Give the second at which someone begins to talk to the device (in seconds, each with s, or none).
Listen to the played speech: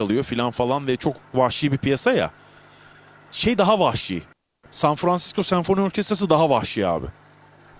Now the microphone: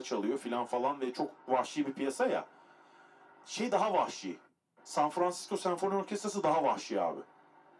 none